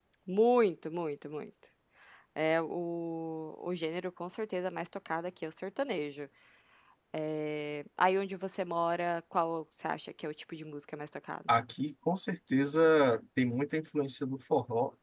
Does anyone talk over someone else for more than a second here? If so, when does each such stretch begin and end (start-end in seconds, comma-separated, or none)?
none